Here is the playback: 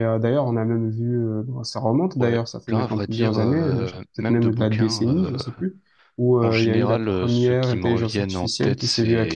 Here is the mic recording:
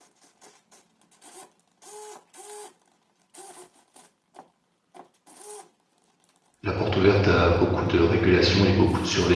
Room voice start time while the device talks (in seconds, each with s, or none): 6.6 s